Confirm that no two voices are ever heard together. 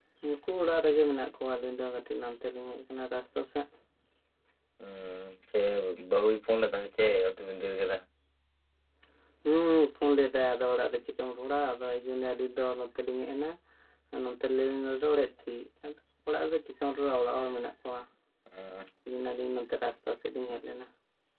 Yes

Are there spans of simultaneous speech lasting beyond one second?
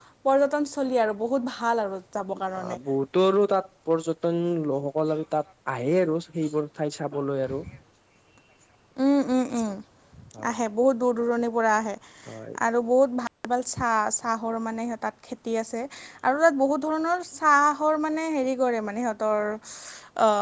No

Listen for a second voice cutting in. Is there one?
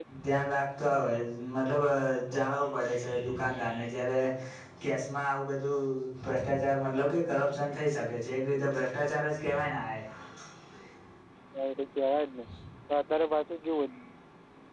No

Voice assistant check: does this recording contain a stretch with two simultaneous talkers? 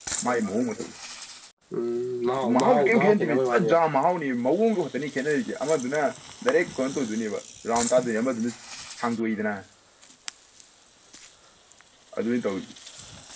Yes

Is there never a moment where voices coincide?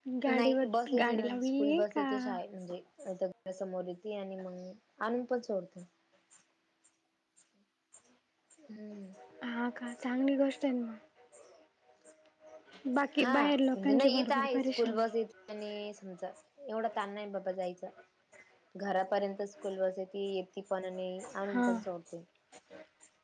No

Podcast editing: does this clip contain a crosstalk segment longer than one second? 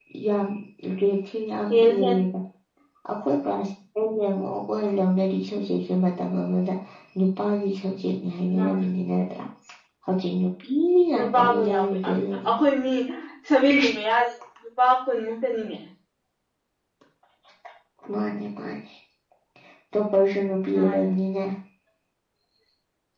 Yes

